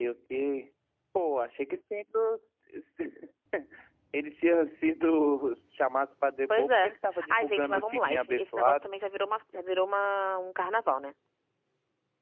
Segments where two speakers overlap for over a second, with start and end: 7.3-8.8

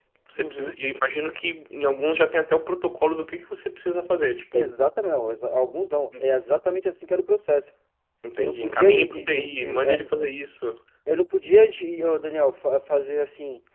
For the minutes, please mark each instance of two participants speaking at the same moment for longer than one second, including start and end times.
8.4-10.0

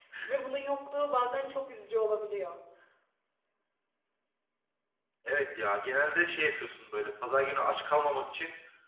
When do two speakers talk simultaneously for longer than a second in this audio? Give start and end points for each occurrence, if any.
none

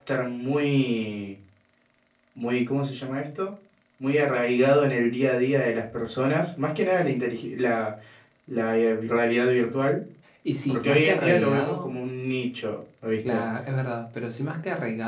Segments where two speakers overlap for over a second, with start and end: 10.7-11.9

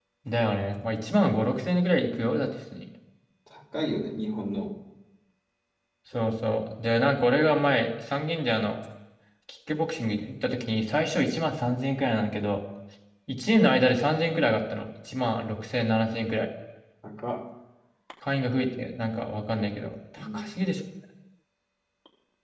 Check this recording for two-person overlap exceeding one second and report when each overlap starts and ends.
none

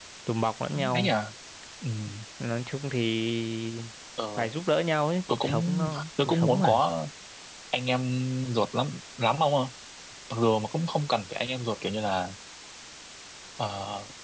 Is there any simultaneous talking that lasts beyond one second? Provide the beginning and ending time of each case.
5.3-6.8

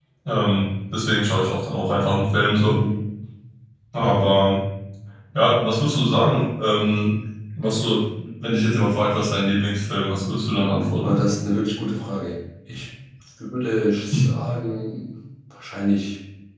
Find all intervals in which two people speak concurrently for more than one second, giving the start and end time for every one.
none

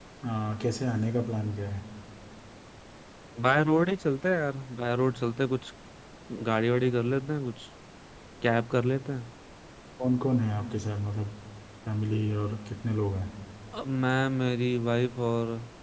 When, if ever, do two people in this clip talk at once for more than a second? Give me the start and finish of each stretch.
none

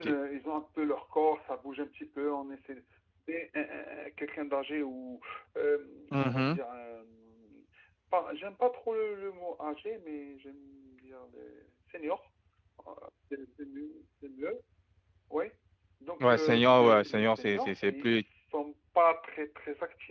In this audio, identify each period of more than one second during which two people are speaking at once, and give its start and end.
16.3-18.2

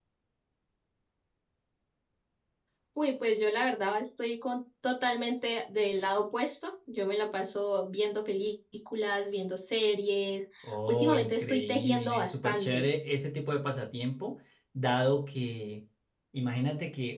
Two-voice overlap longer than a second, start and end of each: 10.9-12.8

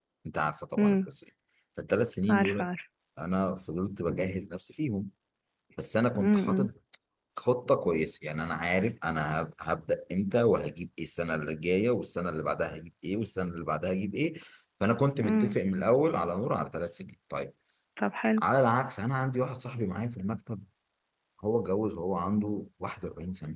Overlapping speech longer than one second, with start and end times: none

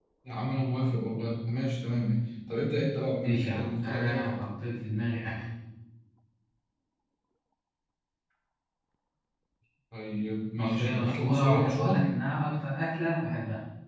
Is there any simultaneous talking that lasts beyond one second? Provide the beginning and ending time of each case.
3.2-4.5, 10.6-12.0

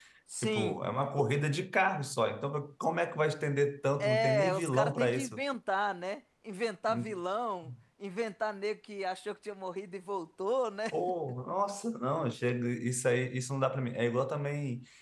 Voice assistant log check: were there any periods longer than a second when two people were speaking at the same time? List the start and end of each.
4.0-5.4

